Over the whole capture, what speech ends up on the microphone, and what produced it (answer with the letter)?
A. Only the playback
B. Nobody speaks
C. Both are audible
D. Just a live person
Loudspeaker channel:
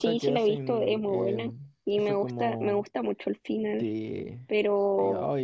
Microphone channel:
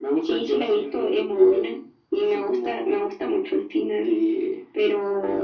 A